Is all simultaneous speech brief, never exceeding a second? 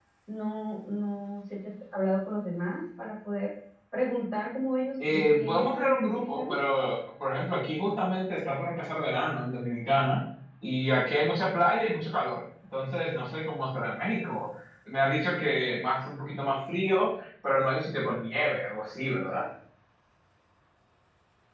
No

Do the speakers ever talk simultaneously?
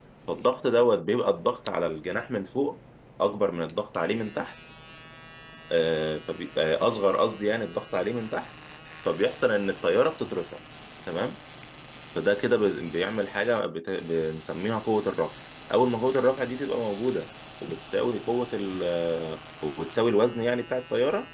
No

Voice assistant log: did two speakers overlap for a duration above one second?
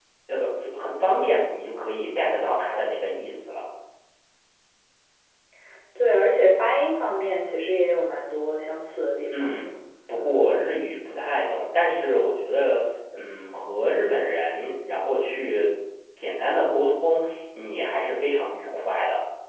No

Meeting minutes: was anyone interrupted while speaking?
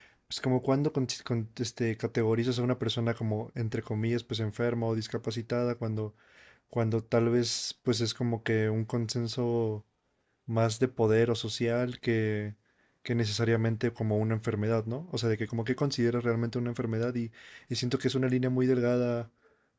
No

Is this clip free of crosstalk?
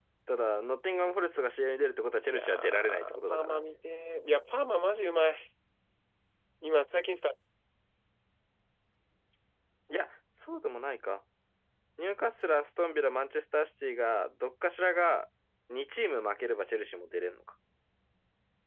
No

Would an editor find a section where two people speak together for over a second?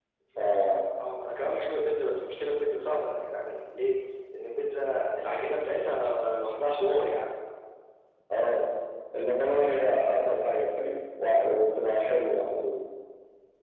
No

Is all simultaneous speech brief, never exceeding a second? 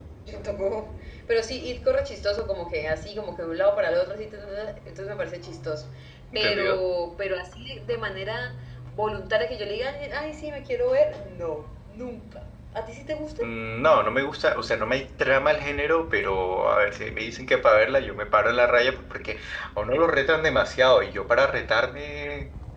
Yes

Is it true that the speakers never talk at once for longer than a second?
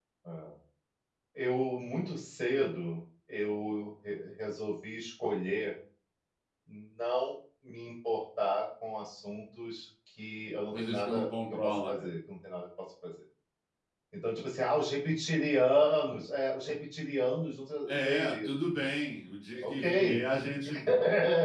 No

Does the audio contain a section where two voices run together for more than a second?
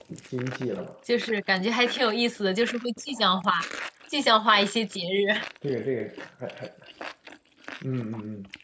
No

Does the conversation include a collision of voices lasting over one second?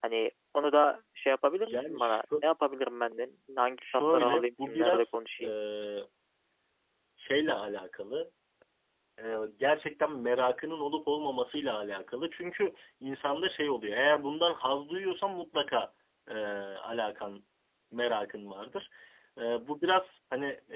Yes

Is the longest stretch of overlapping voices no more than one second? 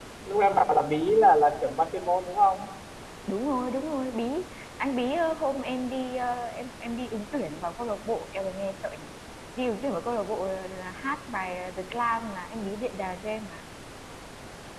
Yes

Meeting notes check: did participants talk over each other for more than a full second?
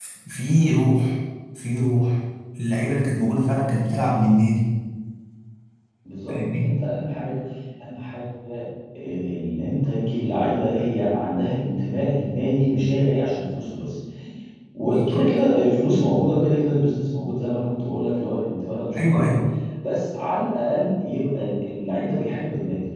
No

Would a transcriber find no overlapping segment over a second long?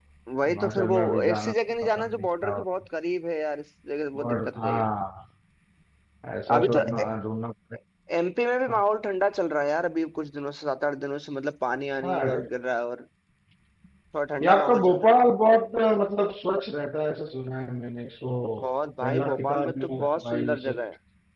No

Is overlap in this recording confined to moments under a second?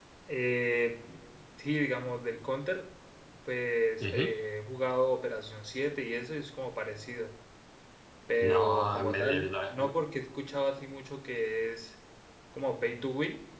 No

